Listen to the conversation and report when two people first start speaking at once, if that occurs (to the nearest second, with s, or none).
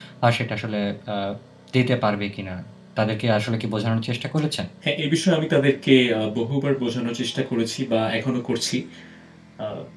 none